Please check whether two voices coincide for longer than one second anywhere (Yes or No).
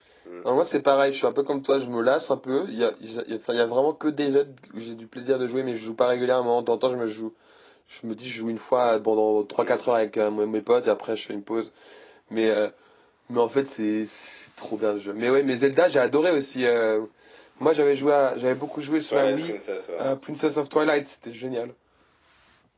No